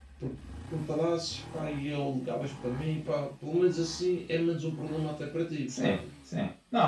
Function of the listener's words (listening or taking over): taking over